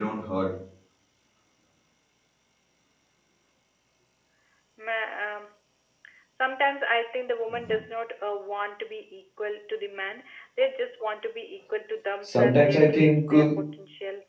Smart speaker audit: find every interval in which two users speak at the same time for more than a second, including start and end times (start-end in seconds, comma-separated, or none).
12.2-13.5